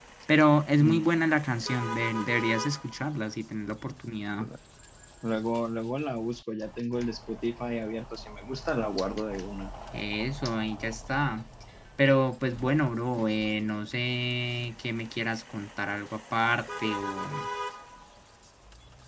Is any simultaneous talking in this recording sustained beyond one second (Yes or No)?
No